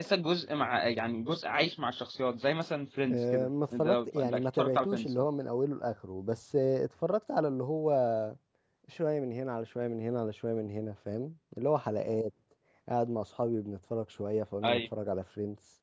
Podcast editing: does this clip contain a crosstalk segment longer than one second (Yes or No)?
Yes